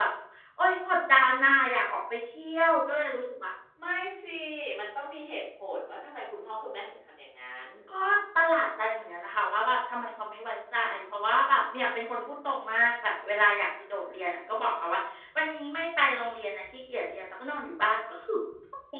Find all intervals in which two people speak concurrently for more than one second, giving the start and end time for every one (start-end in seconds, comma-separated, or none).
none